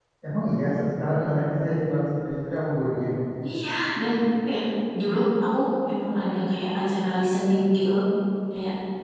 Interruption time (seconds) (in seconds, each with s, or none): none